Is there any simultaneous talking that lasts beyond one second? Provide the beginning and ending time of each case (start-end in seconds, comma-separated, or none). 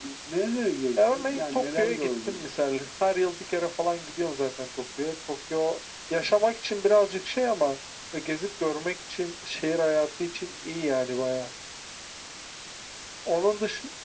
1.0-2.5